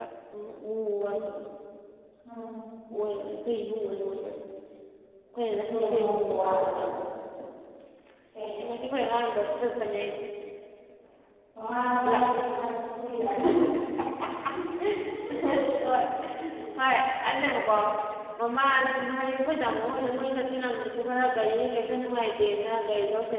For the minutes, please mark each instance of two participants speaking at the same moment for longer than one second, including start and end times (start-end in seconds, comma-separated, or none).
5.5-6.8